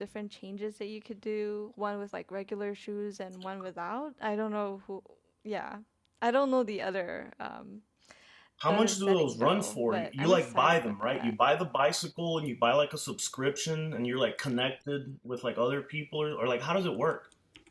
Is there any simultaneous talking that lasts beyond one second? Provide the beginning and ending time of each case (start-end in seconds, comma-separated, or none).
8.7-11.3